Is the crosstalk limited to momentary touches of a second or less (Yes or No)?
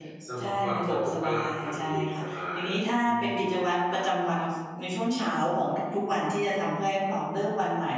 No